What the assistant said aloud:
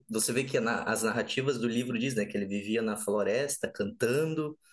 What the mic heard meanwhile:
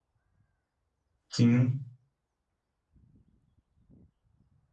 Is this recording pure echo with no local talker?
No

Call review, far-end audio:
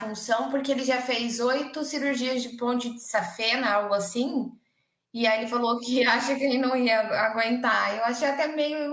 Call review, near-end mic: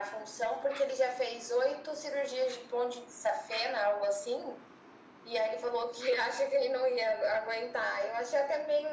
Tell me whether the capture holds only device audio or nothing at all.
Yes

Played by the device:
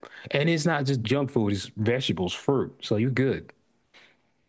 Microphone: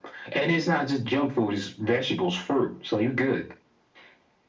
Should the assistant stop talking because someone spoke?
No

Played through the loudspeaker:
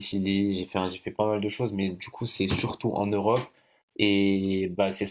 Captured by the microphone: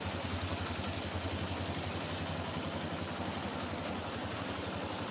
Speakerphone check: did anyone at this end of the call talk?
No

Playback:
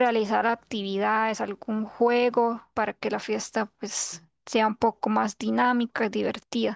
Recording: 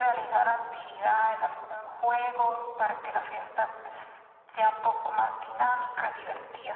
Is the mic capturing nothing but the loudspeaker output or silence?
Yes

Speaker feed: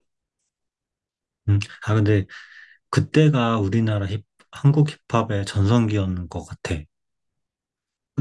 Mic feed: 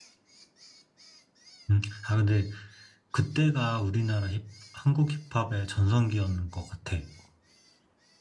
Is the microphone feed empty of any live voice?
Yes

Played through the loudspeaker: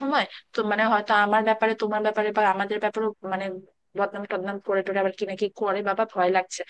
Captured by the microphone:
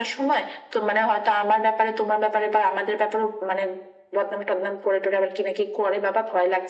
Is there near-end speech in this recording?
No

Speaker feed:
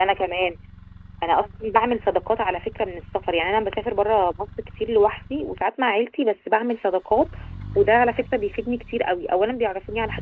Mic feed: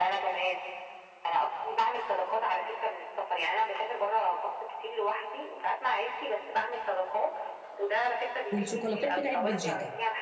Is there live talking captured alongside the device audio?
Yes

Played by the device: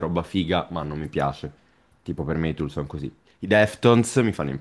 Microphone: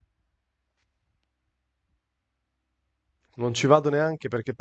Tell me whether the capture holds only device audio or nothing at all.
No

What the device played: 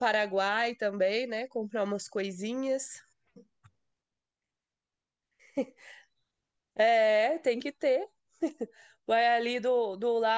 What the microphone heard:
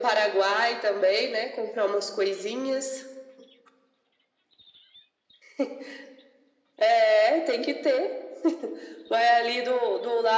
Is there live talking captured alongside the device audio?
No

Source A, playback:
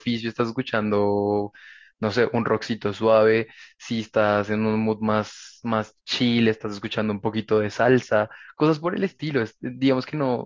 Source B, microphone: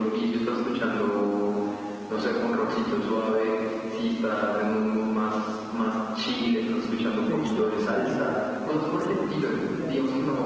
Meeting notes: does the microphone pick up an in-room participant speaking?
Yes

